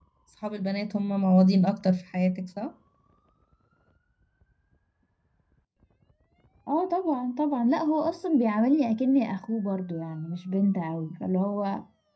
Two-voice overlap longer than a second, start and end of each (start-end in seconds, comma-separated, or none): none